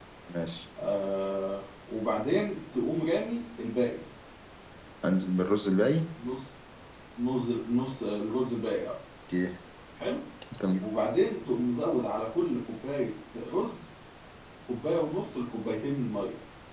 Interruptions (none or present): none